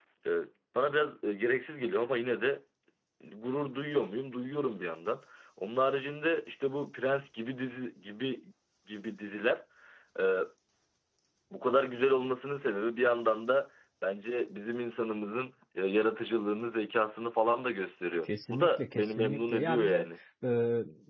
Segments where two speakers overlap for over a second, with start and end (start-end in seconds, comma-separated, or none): 18.3-20.0